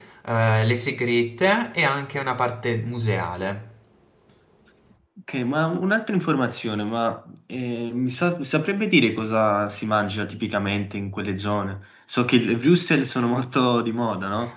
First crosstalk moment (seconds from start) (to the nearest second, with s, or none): none